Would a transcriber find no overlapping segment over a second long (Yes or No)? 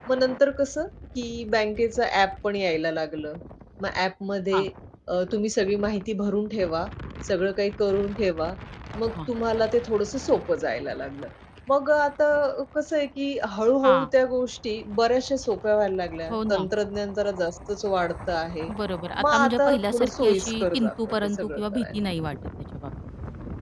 No